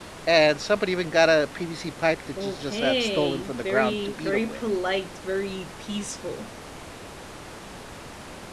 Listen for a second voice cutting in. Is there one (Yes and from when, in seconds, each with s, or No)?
Yes, from 2.4 s